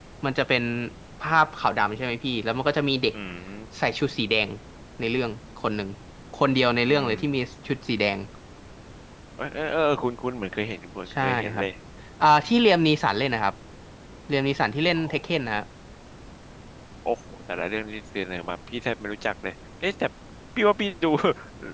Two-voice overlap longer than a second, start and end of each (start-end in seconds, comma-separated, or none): none